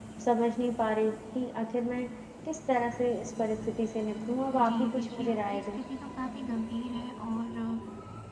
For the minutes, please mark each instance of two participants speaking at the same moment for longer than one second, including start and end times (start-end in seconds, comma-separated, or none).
4.5-5.8